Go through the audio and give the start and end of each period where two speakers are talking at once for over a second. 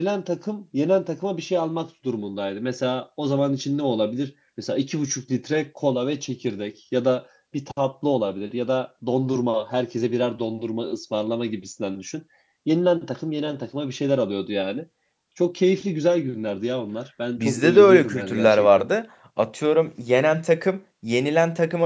17.4-18.9

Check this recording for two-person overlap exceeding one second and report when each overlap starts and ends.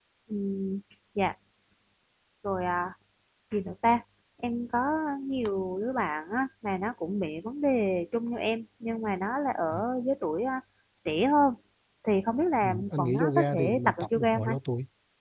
12.6-14.6

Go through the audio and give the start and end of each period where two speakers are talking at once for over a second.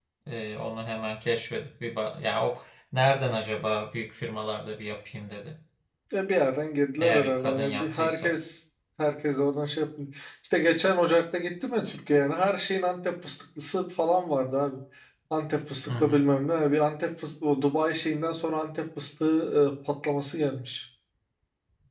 7.0-8.3

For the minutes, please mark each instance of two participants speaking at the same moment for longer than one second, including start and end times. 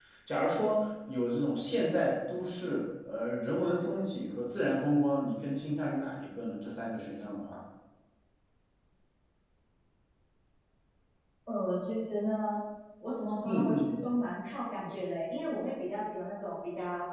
none

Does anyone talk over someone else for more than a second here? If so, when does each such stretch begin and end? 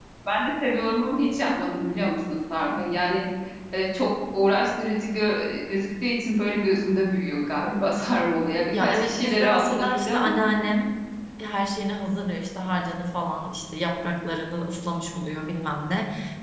8.7-10.4

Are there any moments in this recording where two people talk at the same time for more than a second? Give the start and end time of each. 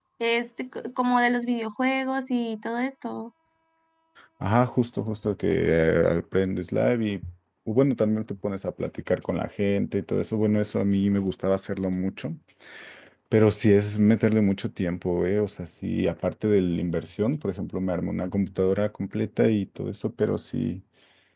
none

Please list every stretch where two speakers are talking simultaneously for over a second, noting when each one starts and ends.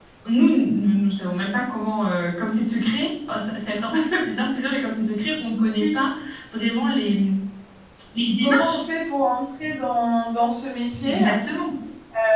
none

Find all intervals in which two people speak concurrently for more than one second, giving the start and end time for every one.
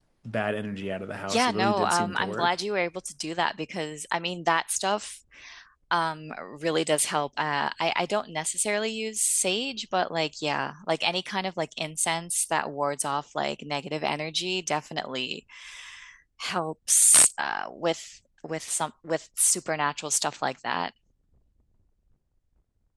1.3-2.6

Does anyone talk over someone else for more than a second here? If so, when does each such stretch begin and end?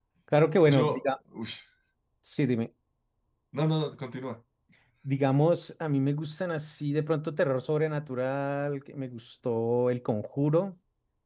none

